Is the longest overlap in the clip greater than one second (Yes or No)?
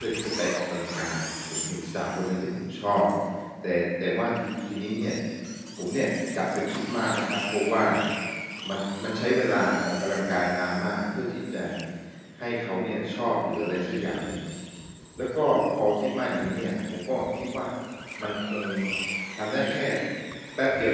No